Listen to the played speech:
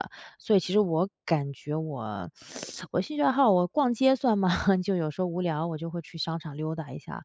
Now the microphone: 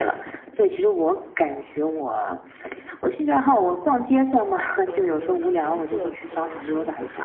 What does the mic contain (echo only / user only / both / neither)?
both